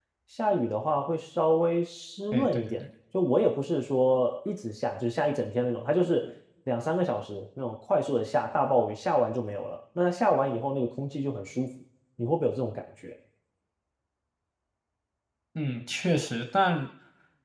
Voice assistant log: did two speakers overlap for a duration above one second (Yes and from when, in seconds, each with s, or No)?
No